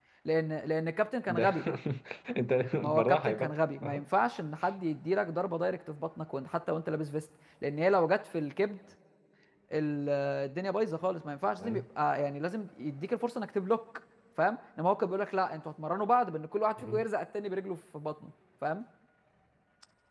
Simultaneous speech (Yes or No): Yes